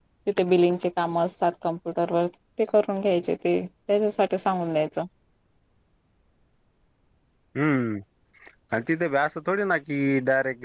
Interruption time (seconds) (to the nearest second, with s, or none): none